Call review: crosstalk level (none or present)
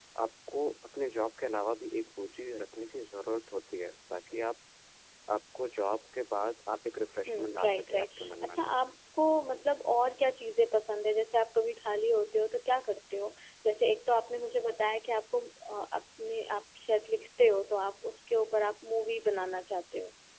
present